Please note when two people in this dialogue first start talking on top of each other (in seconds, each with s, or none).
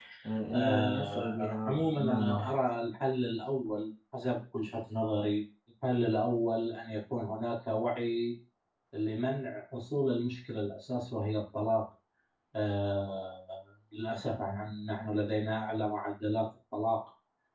0.5 s